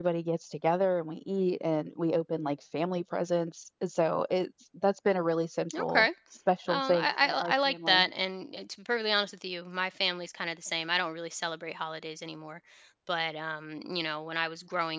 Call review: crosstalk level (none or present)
present